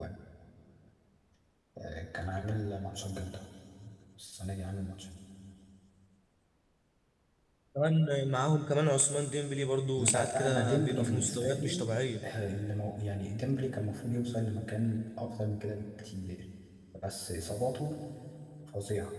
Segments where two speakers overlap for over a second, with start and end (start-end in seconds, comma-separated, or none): 10.0-11.8